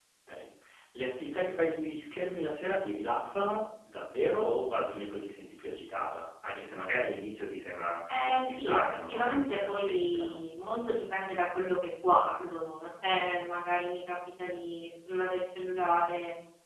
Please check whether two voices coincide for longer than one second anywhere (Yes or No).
Yes